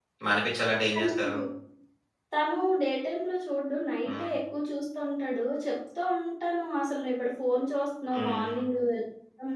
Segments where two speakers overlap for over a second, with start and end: none

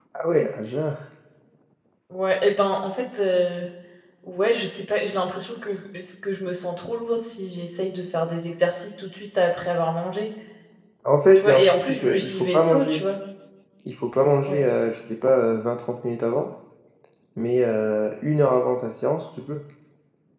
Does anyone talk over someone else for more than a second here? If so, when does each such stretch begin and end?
11.4-13.0

